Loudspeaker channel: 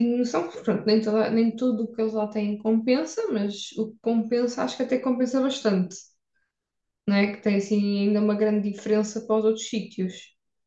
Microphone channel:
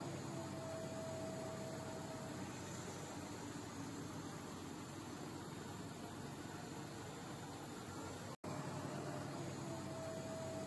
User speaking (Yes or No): No